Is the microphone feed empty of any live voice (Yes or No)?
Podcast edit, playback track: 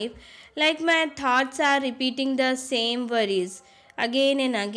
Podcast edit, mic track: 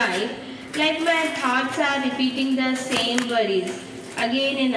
Yes